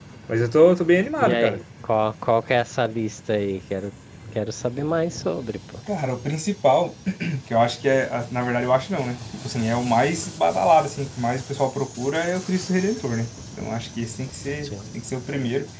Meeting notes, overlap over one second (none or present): none